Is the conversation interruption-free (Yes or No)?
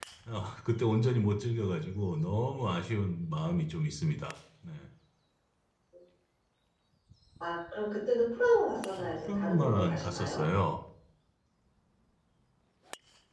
No